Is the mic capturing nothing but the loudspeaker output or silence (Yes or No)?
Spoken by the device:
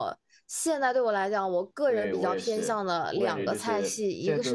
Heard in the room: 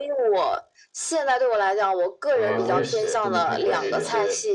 No